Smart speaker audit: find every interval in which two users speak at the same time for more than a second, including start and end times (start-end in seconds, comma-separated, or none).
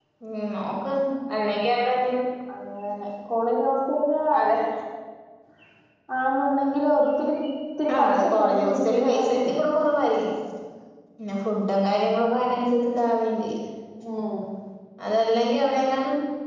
8.0-9.5